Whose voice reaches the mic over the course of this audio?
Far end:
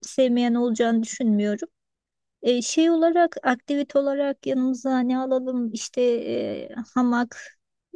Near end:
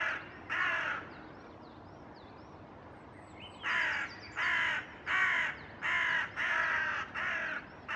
neither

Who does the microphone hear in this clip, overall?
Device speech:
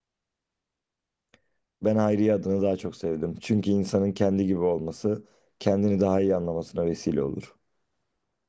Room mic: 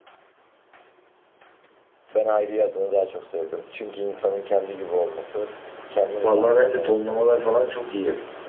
both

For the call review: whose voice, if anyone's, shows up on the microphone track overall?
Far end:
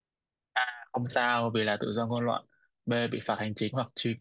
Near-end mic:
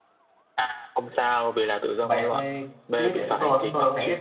both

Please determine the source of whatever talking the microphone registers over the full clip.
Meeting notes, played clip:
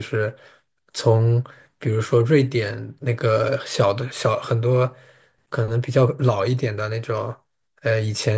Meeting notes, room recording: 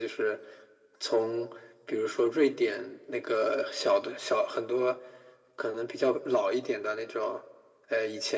echo only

